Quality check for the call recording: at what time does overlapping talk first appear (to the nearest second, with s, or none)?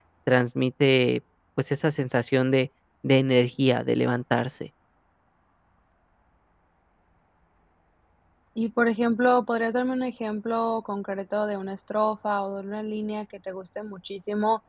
none